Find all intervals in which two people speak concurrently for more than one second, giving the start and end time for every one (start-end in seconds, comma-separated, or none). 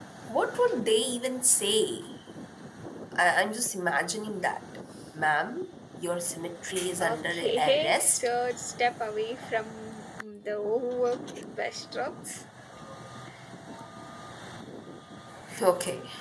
7.0-8.3